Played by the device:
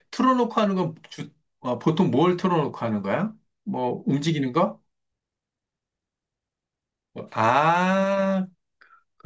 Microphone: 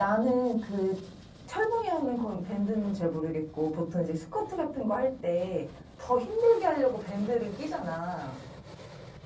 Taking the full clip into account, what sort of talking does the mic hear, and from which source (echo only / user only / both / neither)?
user only